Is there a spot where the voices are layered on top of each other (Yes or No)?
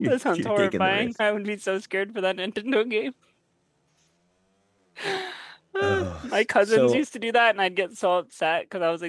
Yes